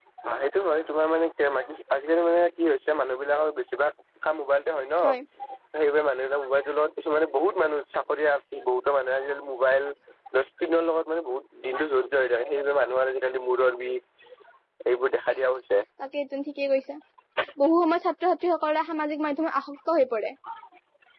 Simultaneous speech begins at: none

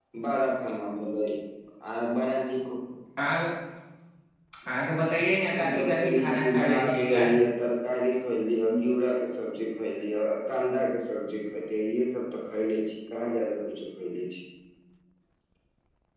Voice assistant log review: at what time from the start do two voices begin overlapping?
6 s

